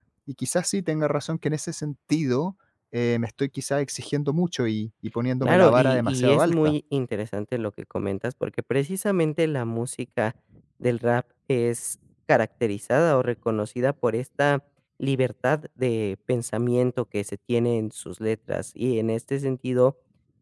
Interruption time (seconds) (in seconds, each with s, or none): 5.4 s